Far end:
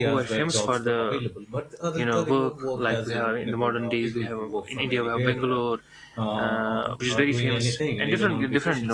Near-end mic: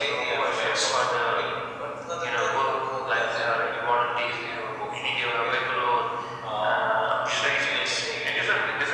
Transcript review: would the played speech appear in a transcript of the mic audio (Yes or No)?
Yes